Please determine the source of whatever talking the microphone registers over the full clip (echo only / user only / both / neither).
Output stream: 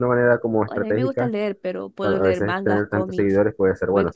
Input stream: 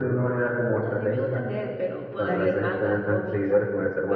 both